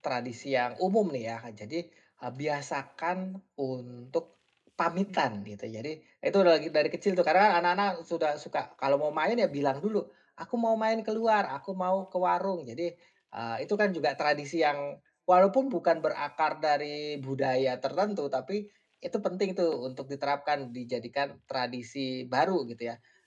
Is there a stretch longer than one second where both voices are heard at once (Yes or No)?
No